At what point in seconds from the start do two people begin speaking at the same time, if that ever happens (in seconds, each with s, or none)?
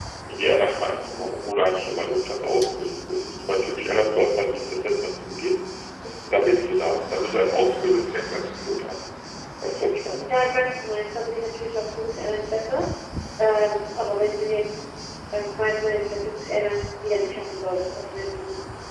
none